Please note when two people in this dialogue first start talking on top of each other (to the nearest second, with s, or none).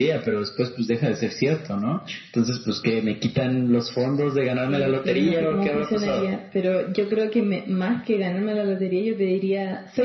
5 s